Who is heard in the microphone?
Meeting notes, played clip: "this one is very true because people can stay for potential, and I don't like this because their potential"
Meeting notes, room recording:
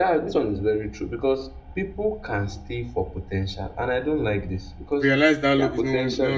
both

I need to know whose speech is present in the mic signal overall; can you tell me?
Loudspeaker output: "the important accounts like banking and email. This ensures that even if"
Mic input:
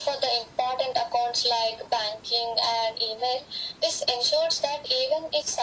echo only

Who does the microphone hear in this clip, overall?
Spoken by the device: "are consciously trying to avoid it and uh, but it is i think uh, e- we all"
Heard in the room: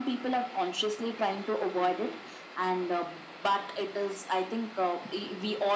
echo only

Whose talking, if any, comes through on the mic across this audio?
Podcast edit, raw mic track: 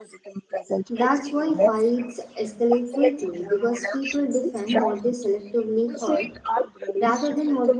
both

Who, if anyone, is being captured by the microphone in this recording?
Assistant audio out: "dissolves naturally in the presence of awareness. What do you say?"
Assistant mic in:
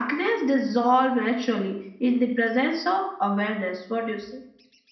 echo only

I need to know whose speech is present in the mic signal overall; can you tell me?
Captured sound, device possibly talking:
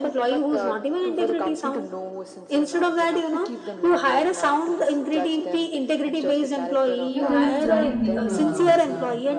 both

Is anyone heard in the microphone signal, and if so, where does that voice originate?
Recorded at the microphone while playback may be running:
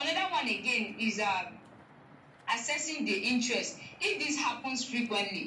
echo only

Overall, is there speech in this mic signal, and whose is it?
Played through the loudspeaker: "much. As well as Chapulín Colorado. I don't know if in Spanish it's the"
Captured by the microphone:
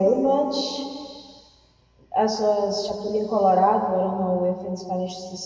echo only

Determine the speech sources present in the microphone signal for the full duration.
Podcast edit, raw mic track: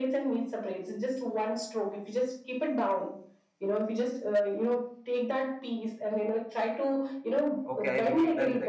both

